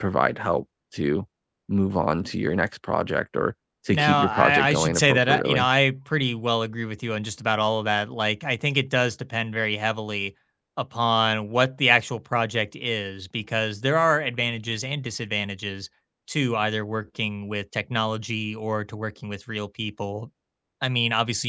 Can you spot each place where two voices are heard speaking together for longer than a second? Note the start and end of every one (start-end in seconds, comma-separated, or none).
3.9-5.7